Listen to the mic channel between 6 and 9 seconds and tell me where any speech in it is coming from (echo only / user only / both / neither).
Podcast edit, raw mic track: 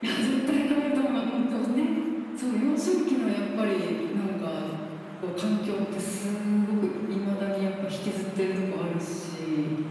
echo only